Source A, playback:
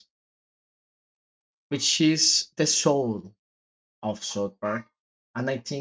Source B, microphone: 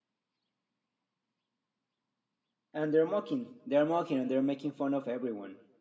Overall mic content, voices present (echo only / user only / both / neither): user only